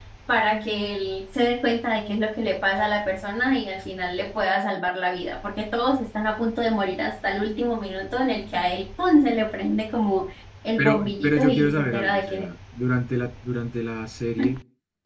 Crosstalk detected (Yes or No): Yes